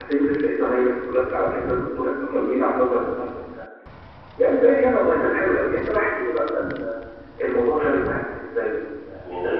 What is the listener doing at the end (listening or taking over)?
taking over